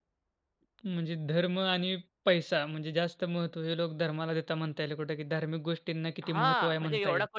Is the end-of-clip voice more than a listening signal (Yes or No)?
Yes